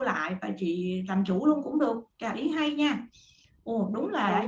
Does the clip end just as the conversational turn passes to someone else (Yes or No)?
Yes